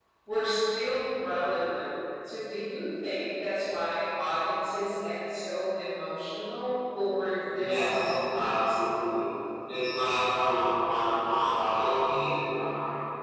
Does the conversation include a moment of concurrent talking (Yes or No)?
Yes